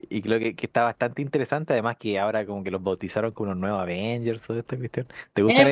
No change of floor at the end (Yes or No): No